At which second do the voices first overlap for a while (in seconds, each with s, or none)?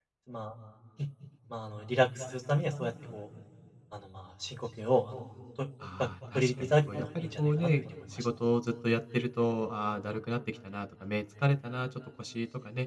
5.8 s